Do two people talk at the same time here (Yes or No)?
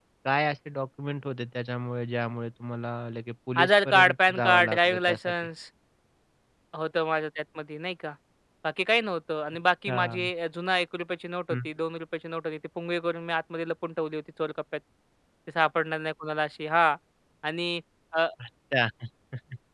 Yes